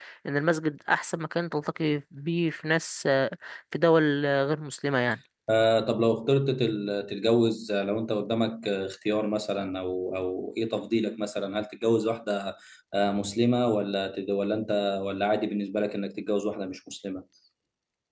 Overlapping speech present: No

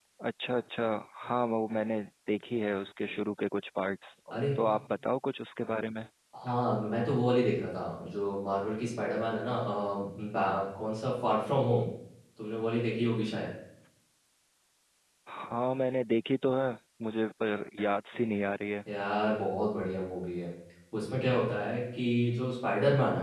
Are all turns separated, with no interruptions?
Yes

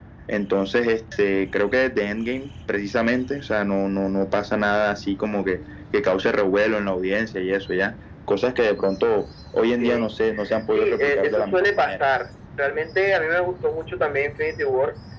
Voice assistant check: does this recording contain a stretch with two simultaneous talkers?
Yes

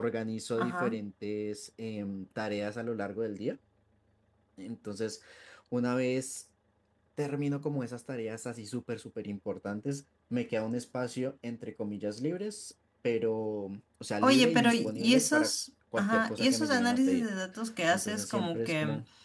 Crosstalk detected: Yes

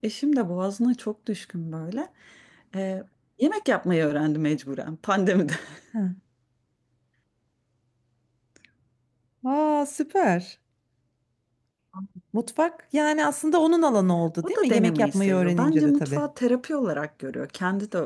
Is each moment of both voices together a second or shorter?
No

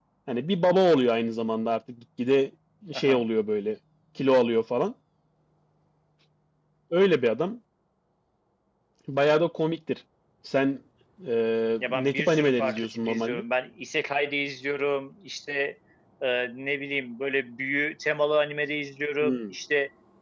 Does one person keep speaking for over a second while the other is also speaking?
Yes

